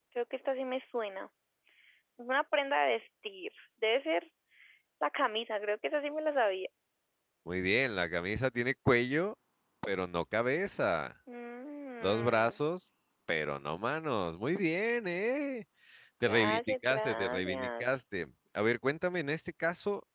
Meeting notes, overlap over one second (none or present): present